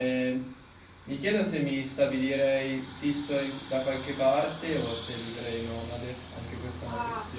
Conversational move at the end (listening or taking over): taking over